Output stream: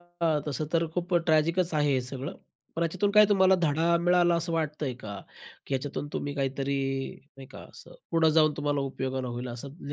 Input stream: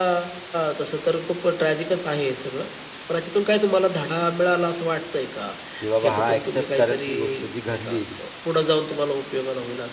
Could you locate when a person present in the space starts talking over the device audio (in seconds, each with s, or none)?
5.8 s